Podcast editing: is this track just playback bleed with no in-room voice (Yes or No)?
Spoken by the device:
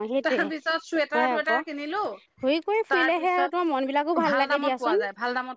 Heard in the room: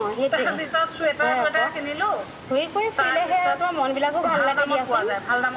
Yes